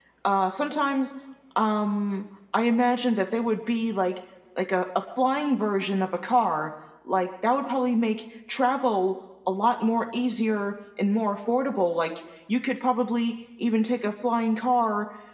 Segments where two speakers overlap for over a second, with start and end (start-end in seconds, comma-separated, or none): none